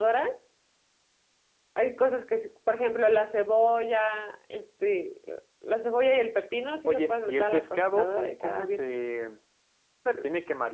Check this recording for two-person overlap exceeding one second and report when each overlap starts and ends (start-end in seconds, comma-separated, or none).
6.9-8.8